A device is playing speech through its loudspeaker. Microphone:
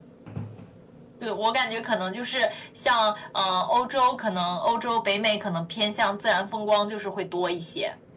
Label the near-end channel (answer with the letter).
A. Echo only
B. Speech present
A